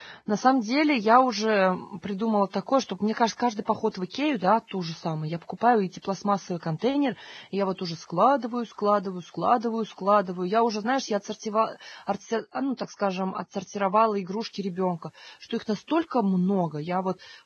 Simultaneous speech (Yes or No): No